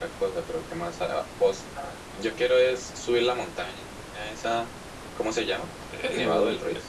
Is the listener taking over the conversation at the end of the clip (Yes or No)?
Yes